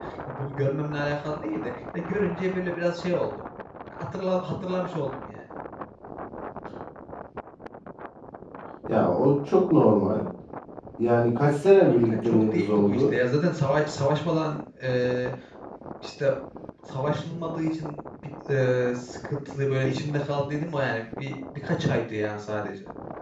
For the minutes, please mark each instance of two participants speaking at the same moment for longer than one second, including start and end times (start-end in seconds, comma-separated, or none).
11.9-13.2